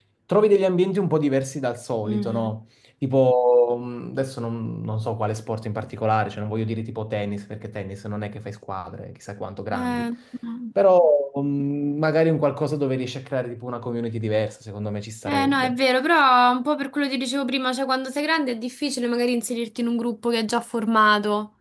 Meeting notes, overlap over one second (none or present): none